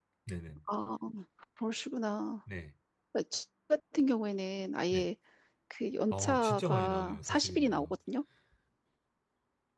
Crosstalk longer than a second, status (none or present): present